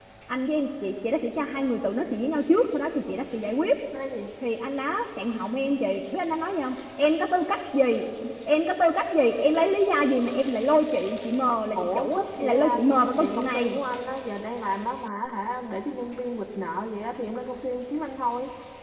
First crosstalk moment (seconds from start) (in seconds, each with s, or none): 11.8 s